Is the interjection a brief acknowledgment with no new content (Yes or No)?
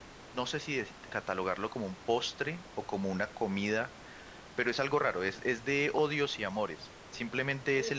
Yes